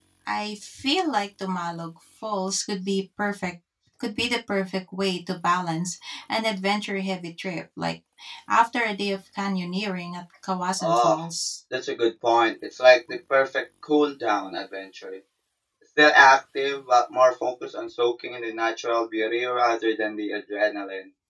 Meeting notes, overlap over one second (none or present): none